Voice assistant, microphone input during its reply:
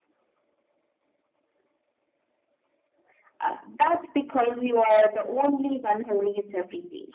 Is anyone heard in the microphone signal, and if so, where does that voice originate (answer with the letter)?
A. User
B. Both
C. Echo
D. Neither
C